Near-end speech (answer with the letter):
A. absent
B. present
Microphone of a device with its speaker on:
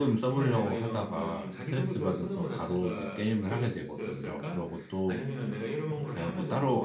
B